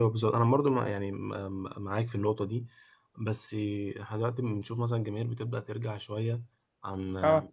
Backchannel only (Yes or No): Yes